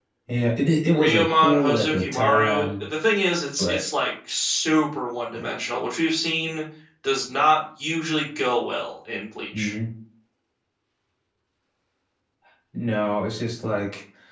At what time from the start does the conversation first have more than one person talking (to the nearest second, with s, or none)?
1 s